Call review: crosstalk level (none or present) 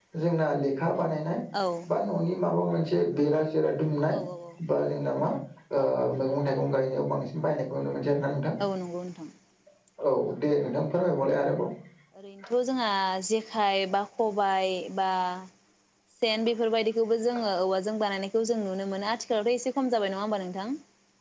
none